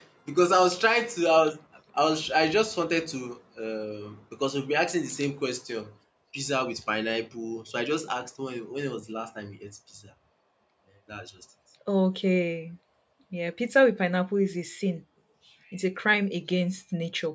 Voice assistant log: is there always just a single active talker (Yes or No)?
Yes